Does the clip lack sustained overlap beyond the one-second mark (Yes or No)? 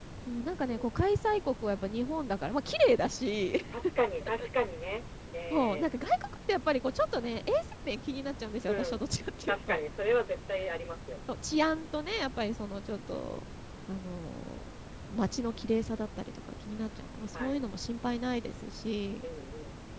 Yes